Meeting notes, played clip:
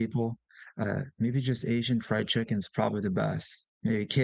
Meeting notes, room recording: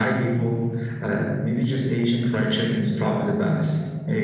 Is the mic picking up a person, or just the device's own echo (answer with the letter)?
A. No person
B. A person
A